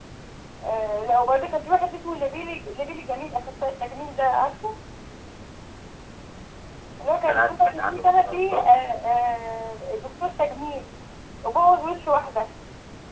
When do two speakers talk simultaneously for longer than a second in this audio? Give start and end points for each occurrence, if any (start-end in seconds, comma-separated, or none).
7.3-8.8